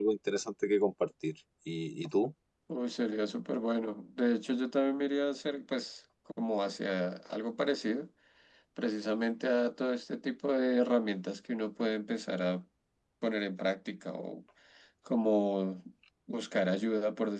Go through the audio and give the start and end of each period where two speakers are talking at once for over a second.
none

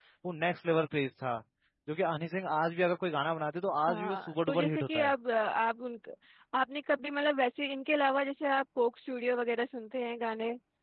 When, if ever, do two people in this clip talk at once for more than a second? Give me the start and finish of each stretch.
3.9-5.1

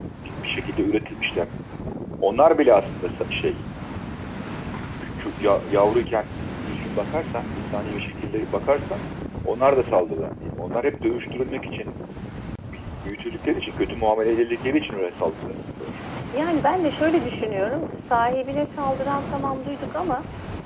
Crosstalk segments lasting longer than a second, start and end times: none

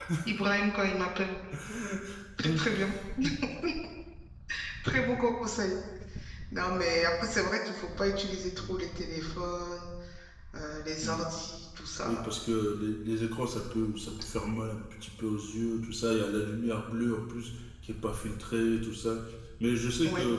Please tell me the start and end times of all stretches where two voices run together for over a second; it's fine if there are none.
none

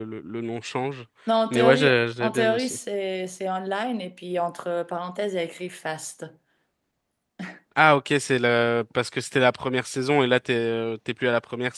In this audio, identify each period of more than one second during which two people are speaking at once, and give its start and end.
1.5-2.8

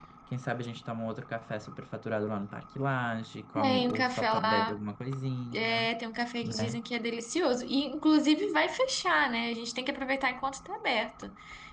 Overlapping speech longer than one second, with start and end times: 3.5-4.8

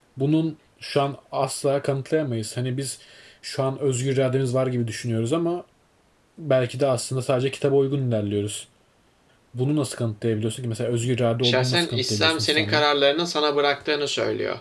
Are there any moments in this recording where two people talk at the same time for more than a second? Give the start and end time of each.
11.4-12.8

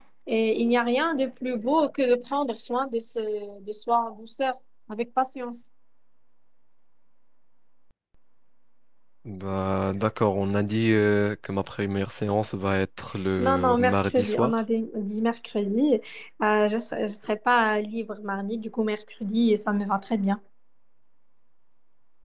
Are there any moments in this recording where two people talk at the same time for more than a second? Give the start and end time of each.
13.4-14.6

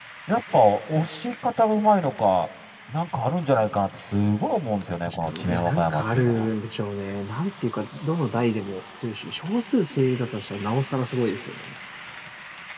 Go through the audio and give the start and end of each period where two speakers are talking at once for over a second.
5.0-6.5

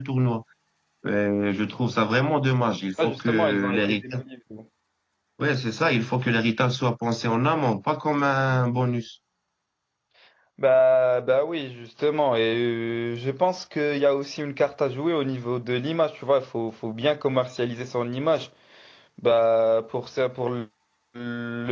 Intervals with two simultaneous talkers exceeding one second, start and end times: 3.0-4.2

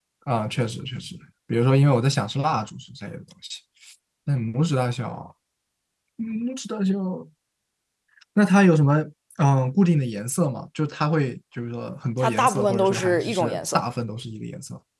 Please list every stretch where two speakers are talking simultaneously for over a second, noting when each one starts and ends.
12.2-13.8

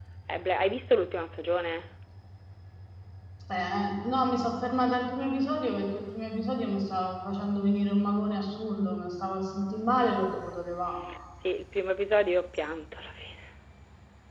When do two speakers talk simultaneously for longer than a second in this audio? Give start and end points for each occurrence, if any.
none

